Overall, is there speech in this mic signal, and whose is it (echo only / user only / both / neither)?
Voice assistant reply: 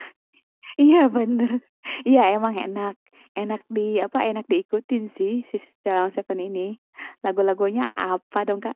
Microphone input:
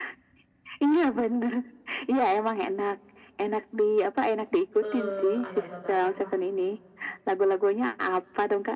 both